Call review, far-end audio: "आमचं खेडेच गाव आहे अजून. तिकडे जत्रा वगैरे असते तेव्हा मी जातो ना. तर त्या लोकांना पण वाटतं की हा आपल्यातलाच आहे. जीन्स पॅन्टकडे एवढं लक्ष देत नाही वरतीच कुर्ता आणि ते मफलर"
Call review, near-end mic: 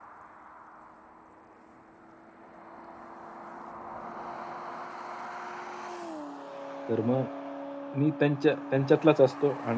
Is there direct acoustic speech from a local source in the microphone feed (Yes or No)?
Yes